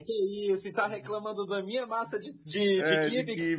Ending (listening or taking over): taking over